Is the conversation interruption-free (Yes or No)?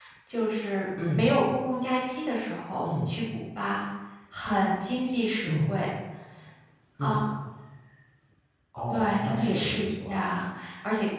No